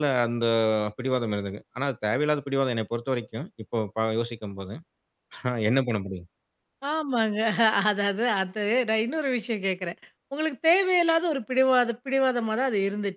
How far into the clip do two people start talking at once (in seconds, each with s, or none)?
none